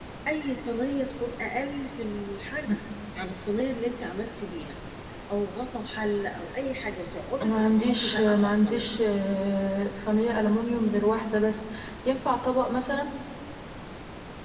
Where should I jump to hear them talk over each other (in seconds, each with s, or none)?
7.4 s